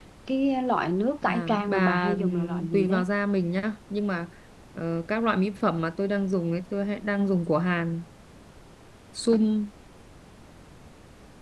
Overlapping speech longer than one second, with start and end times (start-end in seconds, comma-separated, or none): 1.2-3.0